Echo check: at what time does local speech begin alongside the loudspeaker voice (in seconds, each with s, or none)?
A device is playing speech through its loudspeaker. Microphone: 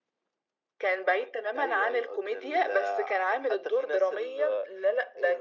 none